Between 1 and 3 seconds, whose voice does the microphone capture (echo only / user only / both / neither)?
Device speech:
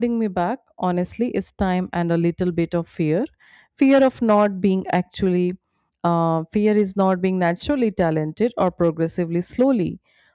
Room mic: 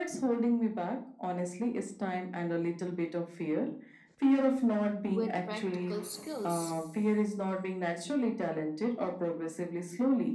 echo only